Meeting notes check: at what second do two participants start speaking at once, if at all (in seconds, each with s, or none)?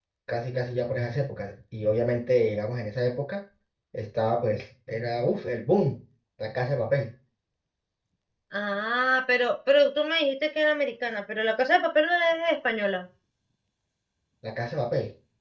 none